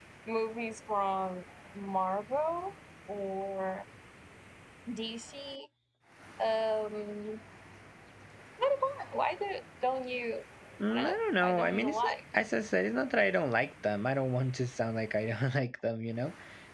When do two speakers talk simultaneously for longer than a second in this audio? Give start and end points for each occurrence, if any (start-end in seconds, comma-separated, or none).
10.9-12.1